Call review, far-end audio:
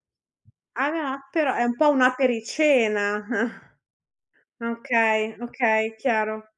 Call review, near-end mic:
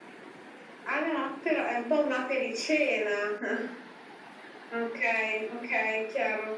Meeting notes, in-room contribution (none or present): none